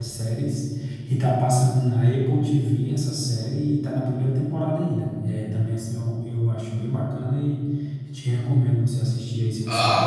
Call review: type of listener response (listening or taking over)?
taking over